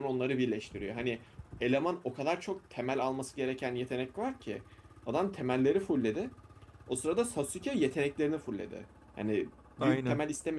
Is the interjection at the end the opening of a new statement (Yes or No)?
No